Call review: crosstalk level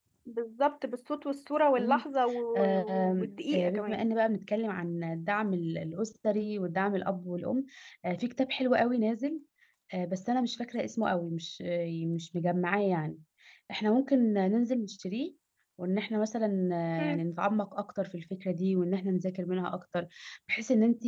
present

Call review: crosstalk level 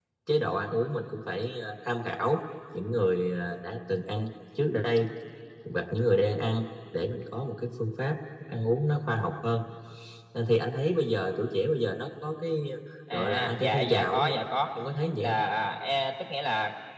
present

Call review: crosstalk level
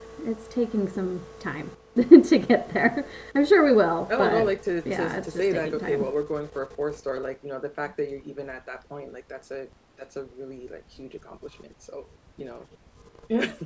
present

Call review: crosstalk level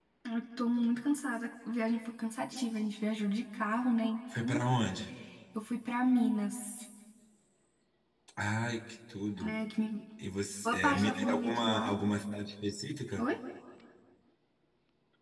present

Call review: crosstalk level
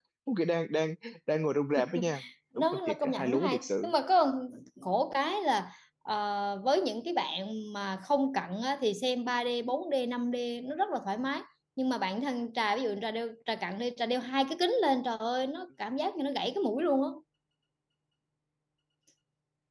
present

